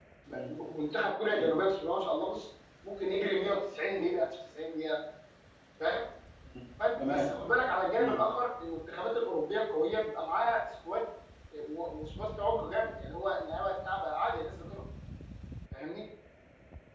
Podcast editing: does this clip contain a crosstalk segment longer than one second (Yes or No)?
No